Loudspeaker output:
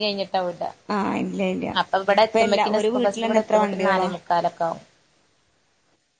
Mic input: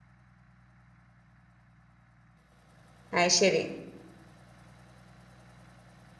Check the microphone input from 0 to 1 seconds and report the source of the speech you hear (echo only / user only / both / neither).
neither